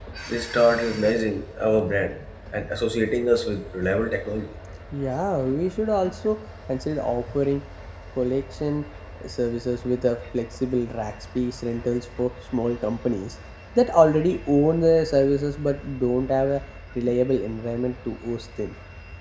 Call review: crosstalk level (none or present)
none